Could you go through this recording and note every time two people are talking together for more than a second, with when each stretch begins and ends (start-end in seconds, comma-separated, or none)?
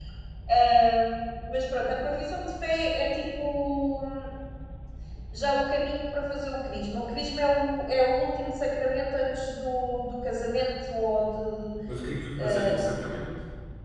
none